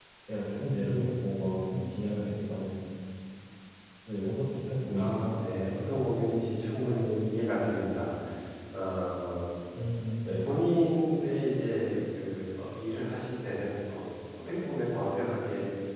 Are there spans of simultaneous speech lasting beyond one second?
No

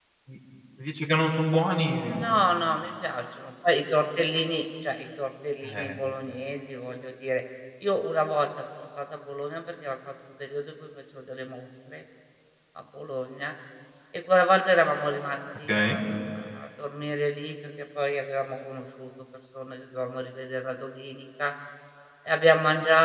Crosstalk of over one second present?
No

